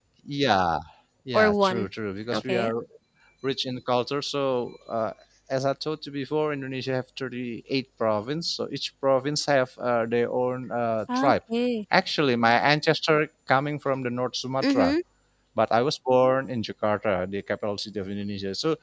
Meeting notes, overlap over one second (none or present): none